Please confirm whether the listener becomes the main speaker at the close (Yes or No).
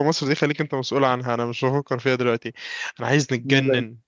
No